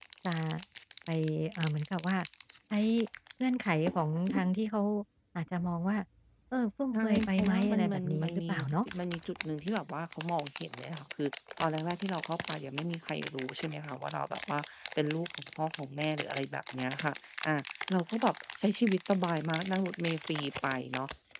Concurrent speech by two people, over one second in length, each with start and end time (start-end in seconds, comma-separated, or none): 6.9-8.8